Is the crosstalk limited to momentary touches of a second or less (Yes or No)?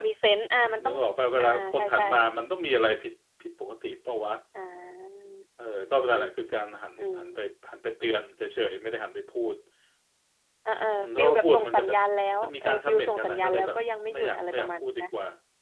No